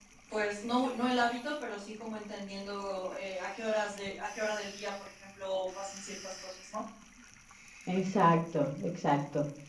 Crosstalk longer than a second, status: none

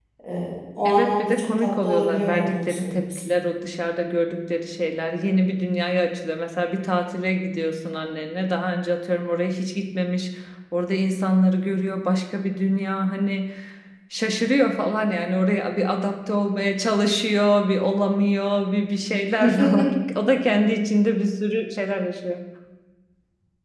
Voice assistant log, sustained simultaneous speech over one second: present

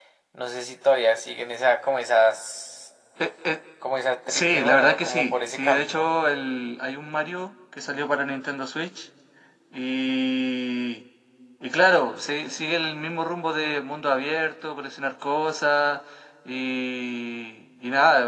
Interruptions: present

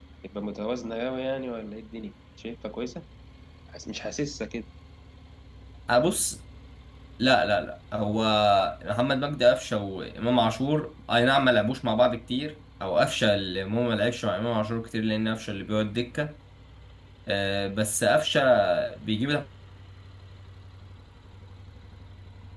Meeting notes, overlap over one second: none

